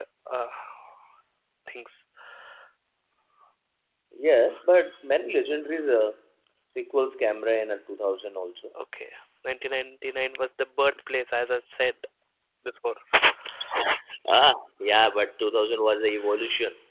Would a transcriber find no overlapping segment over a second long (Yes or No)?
Yes